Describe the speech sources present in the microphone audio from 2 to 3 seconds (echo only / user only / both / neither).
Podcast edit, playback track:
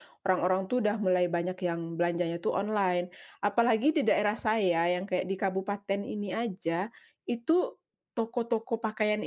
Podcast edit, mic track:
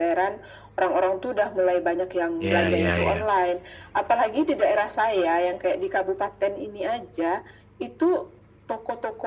both